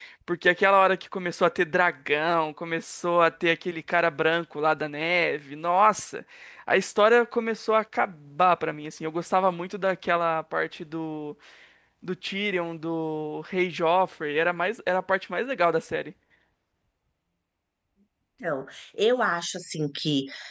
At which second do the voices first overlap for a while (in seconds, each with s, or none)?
none